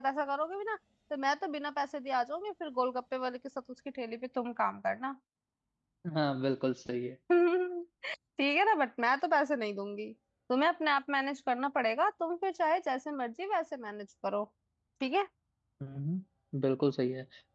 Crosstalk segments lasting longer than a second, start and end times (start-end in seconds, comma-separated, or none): none